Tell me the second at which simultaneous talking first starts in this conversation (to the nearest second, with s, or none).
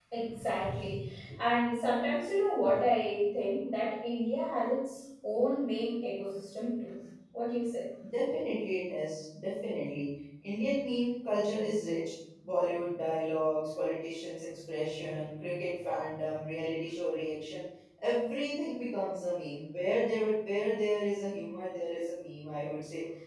none